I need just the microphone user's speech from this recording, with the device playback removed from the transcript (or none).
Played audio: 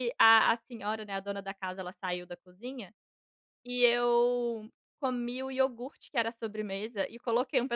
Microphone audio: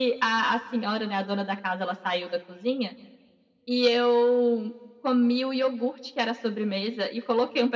none